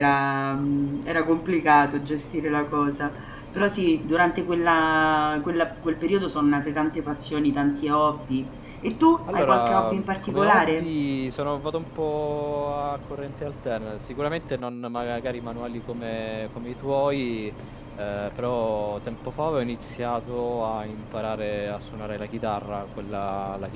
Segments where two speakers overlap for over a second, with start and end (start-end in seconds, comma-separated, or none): 9.3-10.9